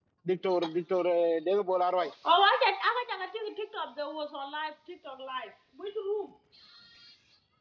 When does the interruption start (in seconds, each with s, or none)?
none